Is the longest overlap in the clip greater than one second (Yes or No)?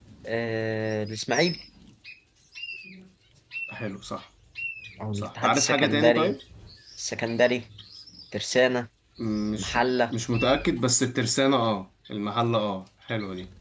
Yes